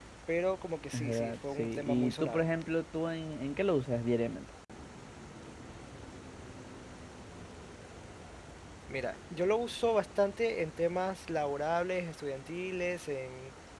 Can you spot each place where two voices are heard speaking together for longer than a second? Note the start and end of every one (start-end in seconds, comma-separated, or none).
0.9-2.5